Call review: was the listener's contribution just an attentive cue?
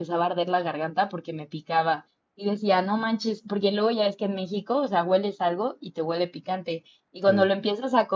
Yes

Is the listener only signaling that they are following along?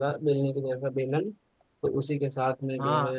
Yes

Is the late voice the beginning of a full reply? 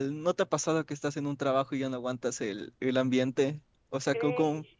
No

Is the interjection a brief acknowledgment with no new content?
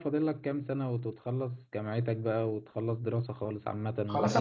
No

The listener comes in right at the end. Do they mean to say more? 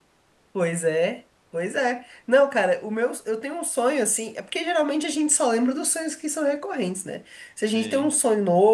No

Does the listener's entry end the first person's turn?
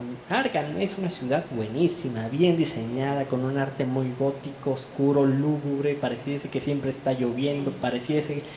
No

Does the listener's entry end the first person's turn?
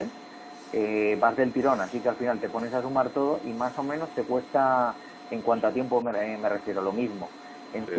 No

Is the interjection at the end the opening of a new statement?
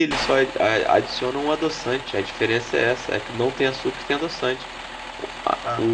No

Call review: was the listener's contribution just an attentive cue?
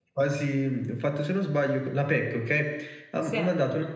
Yes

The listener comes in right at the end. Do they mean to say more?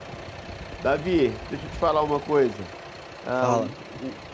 No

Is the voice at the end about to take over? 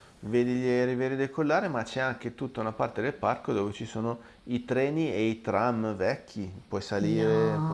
Yes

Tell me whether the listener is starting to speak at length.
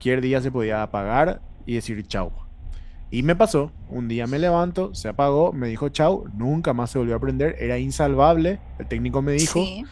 No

